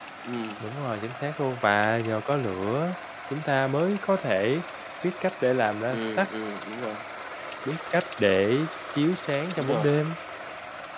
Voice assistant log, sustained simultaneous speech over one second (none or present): none